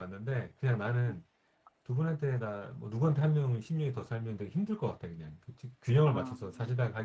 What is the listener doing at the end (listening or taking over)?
listening